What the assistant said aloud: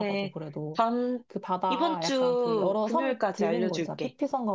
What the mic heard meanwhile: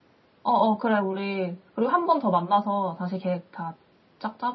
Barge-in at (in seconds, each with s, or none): 0.4 s